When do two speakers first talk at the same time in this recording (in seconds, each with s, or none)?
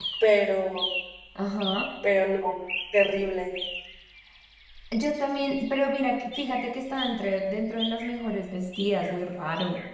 none